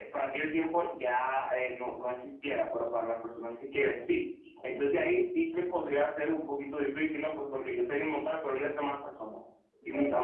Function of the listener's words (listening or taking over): listening